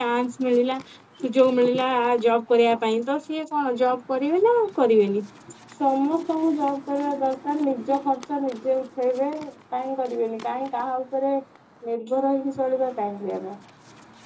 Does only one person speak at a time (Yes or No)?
Yes